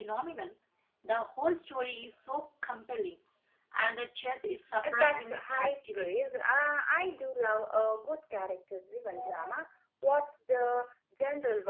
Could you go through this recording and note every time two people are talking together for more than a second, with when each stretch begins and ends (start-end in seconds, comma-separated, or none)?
4.8-6.3